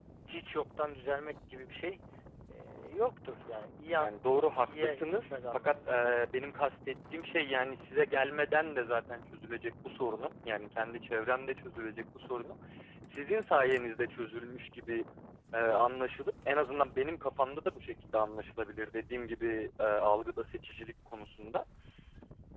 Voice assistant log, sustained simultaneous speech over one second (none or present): present